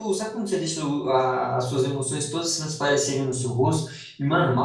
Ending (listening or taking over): listening